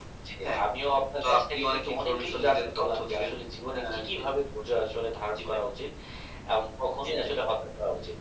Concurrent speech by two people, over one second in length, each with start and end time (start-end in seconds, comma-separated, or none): 1.2-3.3